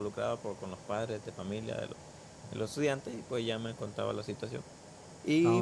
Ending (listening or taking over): listening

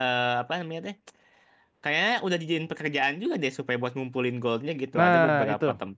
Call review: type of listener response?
taking over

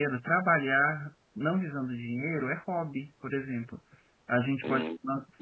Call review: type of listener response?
listening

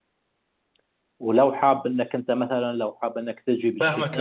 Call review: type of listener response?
taking over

